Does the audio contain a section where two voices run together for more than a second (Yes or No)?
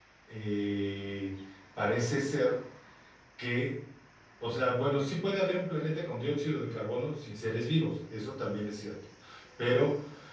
No